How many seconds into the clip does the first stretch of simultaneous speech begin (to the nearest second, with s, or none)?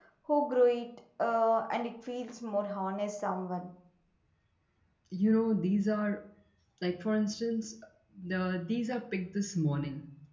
none